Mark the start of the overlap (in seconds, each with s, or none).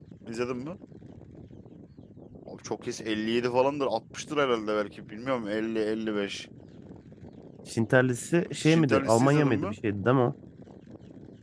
8.5 s